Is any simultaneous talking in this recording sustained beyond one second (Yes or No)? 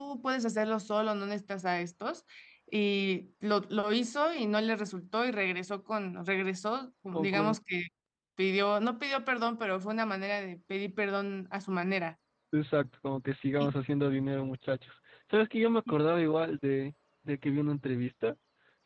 No